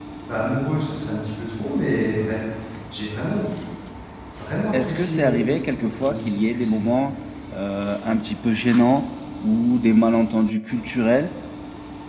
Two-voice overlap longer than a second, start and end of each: 4.7-6.9

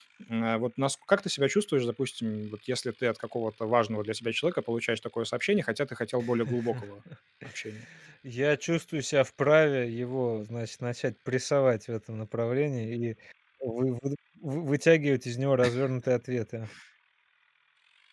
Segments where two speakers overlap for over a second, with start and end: none

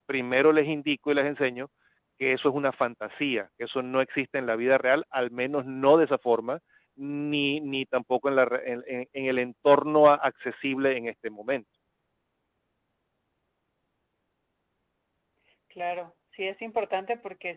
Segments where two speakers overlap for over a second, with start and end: none

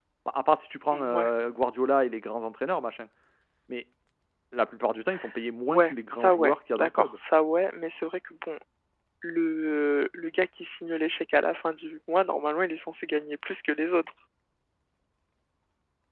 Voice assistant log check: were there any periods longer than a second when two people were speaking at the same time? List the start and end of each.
5.7-7.2

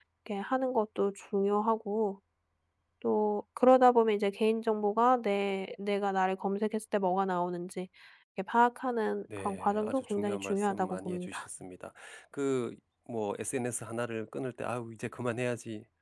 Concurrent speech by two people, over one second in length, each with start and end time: 9.4-11.5

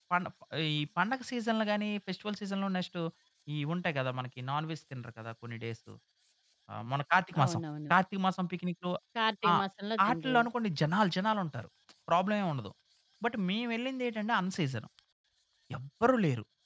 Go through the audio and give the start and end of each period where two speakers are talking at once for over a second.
none

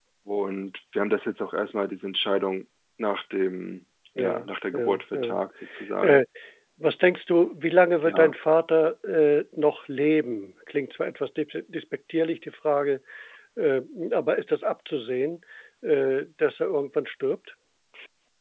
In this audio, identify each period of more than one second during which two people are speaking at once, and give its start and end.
4.2-5.4

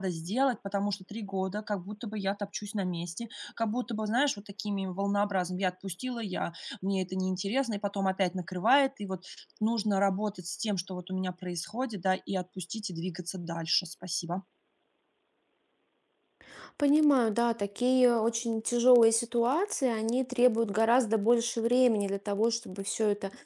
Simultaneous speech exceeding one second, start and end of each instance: none

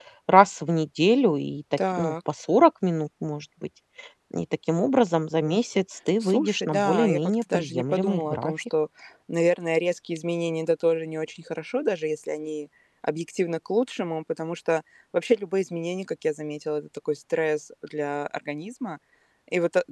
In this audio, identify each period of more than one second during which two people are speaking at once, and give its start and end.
6.2-8.5

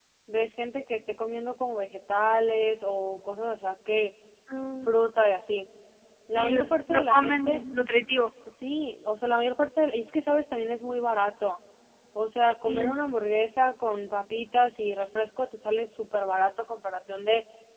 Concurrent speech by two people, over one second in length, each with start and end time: 6.4-7.6

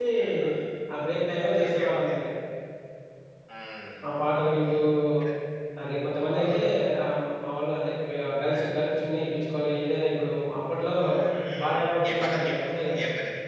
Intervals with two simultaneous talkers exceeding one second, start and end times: 11.6-12.9

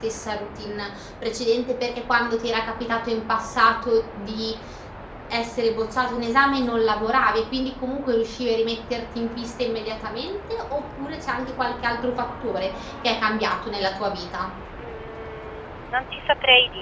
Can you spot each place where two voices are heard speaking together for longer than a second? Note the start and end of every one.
none

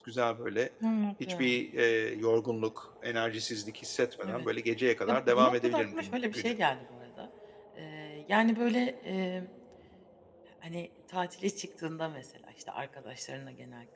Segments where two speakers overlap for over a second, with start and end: 5.1-6.5

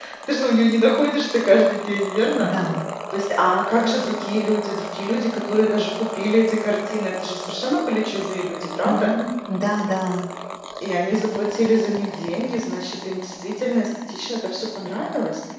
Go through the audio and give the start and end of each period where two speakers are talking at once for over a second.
none

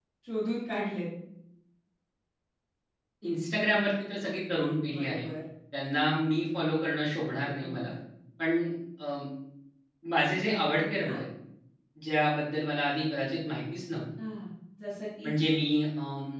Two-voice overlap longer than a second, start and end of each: none

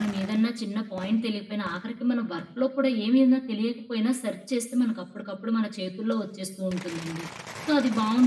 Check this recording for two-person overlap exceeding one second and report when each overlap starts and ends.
none

